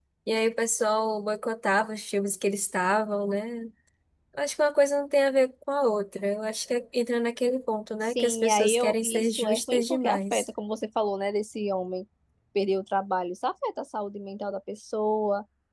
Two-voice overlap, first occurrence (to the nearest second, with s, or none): 8 s